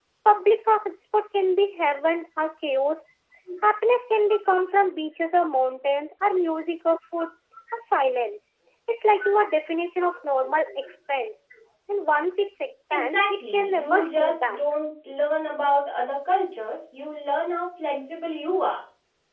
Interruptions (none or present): present